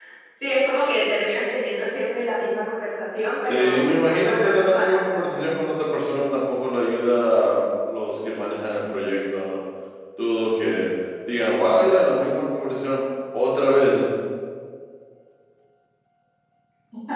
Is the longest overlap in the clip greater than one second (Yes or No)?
Yes